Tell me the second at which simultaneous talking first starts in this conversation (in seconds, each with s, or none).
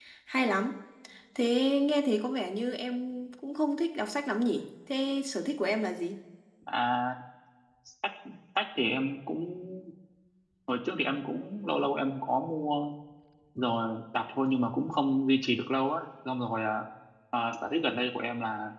none